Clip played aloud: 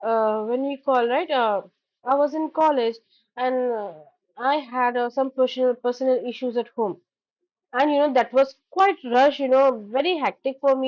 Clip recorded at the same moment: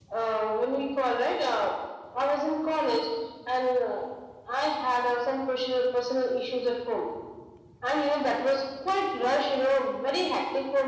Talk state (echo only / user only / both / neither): echo only